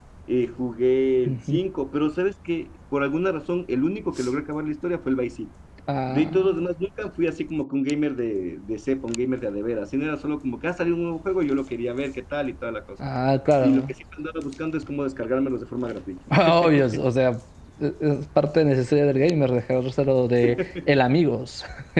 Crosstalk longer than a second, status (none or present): none